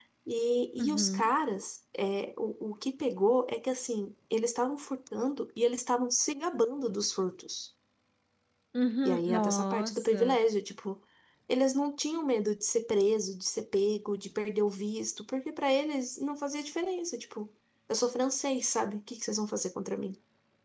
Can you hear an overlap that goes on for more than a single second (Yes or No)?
Yes